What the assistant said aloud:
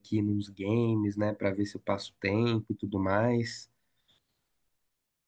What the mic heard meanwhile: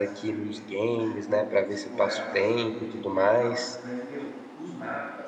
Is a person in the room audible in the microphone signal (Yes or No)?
Yes